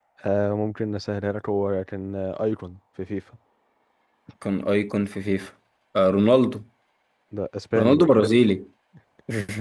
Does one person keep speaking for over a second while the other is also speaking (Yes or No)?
No